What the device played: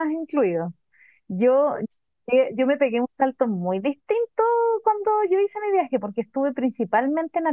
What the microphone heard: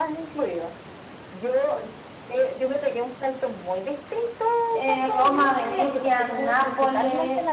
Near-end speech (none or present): present